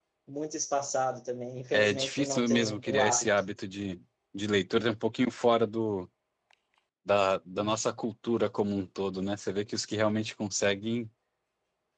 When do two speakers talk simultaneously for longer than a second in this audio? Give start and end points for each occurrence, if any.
1.7-3.3

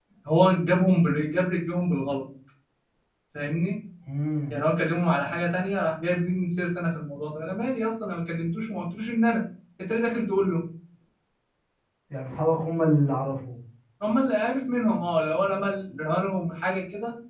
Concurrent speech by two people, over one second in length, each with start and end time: none

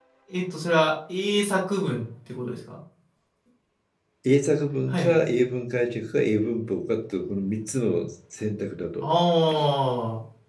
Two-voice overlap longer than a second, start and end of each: none

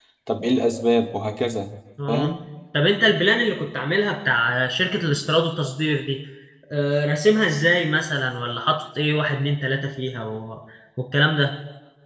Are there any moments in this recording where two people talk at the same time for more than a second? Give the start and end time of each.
none

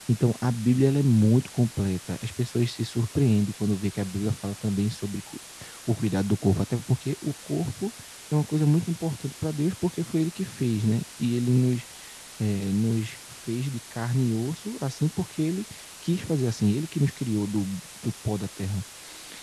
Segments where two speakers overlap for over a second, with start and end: none

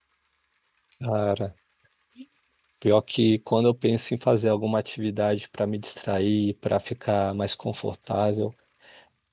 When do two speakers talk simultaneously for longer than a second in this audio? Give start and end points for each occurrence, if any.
none

